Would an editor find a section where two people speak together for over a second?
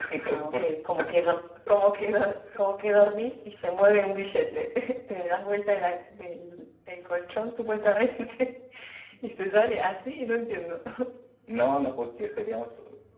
No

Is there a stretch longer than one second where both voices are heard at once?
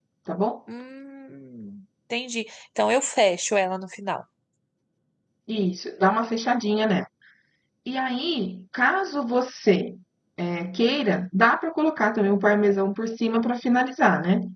No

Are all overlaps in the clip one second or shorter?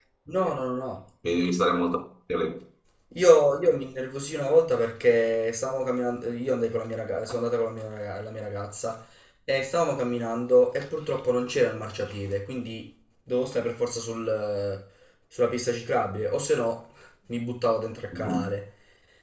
Yes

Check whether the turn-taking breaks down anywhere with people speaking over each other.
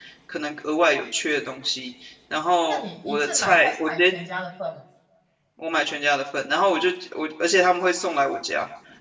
Yes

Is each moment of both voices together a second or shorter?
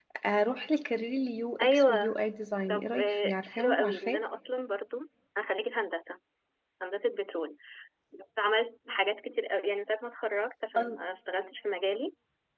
No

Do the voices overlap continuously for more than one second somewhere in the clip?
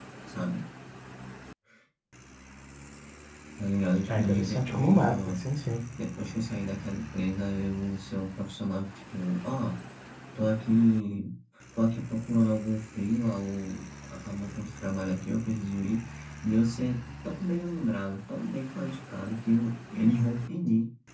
Yes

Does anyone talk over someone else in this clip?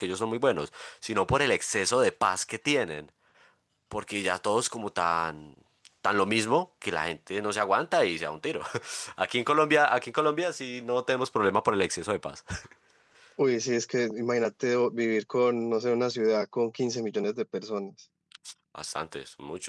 No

